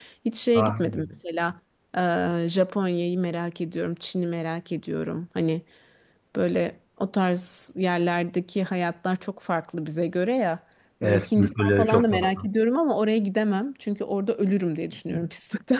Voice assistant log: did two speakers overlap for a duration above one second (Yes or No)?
Yes